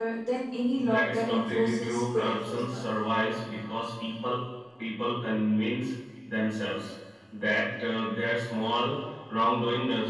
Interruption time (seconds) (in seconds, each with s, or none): 0.8 s